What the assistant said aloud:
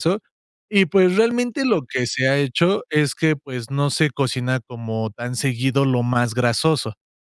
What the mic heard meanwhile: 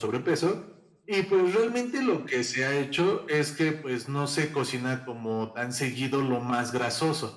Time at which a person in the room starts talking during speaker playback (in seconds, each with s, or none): none